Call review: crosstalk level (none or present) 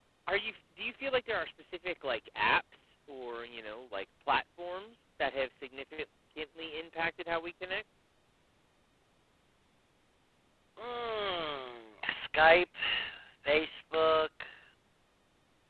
none